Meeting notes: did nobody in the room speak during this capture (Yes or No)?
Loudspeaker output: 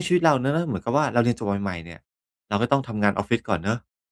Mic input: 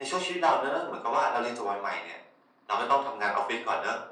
Yes